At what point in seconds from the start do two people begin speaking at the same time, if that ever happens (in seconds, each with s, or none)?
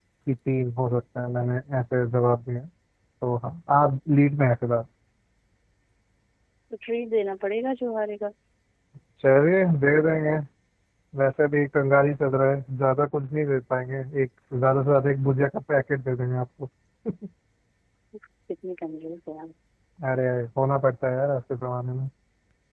none